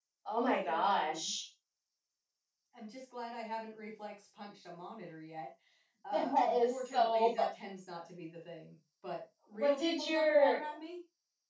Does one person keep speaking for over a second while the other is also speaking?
Yes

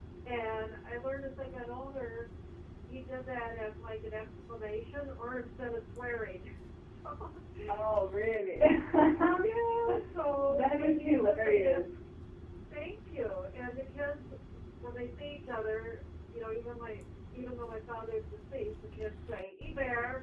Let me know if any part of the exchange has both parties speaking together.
Yes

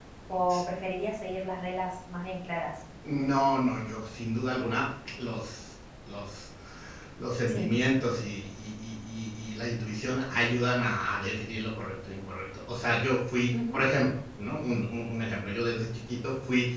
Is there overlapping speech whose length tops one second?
No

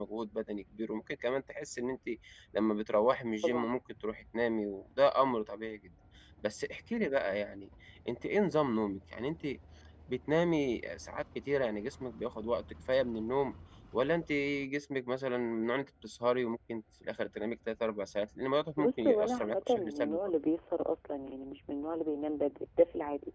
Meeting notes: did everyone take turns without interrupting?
No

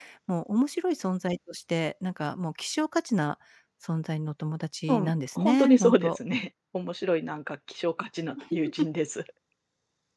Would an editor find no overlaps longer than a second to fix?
No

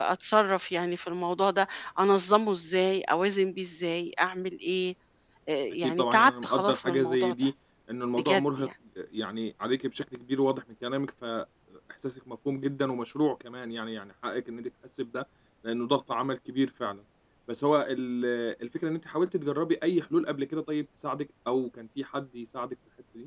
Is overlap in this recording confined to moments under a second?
No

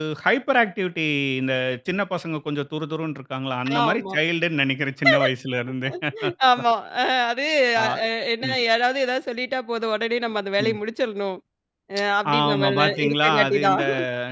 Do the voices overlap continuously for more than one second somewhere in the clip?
Yes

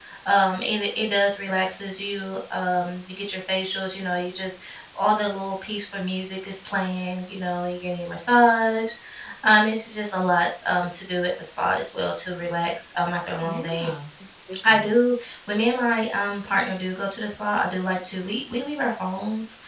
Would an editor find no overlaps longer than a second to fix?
Yes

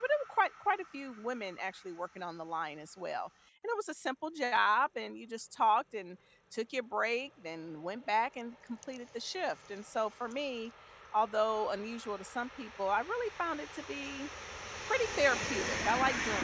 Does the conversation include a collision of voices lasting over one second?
No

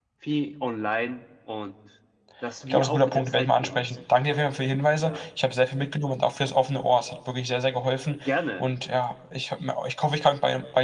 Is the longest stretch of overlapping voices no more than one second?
No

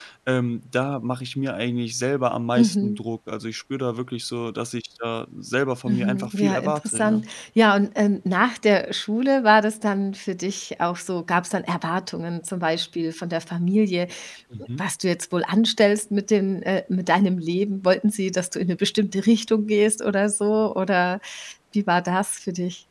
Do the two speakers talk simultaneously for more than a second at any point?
Yes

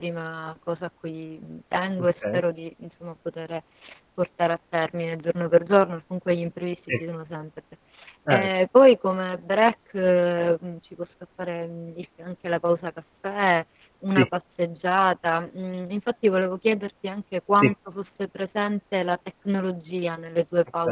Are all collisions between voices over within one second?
Yes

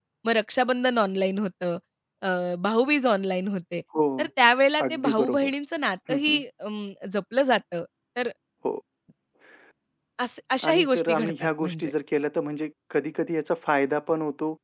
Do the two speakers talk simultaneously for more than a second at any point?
Yes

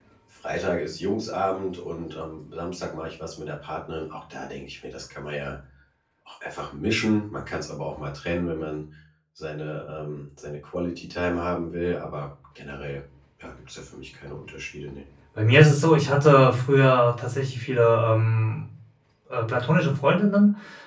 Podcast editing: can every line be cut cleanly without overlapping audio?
Yes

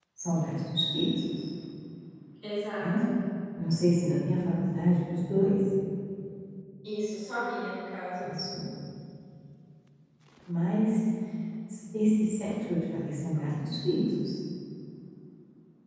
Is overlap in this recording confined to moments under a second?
Yes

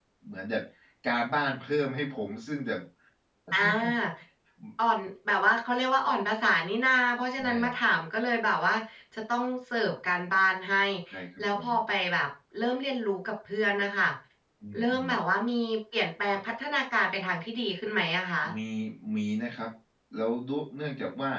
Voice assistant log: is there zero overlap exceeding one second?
Yes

